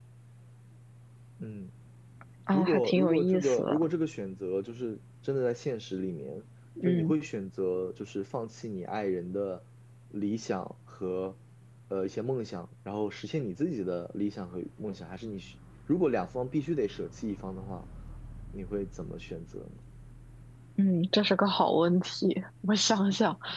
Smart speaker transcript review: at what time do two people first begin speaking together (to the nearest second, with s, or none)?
3 s